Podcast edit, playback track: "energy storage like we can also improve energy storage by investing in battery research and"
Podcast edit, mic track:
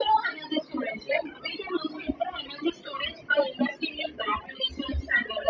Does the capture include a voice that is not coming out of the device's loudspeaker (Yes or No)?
No